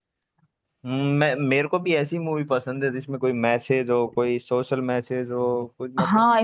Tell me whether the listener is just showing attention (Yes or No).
No